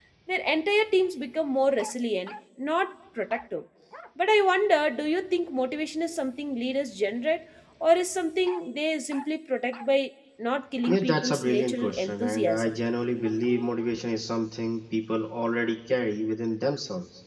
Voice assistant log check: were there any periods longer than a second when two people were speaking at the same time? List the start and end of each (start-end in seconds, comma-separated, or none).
10.9-12.7